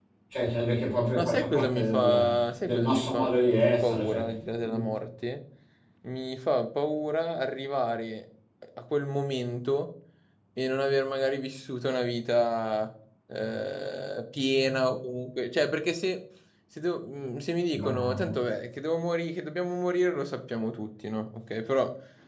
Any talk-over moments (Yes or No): Yes